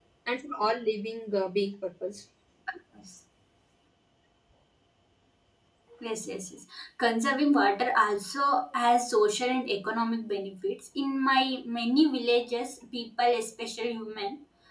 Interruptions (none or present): none